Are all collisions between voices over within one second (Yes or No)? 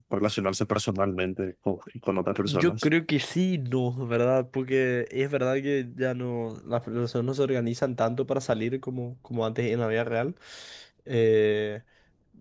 Yes